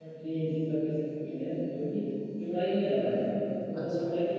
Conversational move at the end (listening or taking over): listening